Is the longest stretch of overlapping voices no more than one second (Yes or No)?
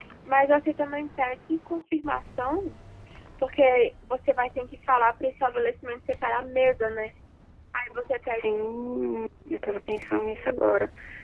Yes